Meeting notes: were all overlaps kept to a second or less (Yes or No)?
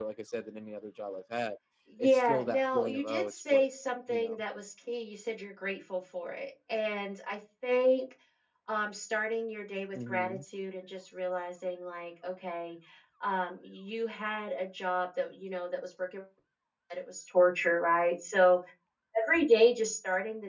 No